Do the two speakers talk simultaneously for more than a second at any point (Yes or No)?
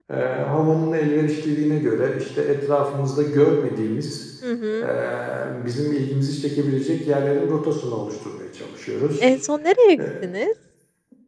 No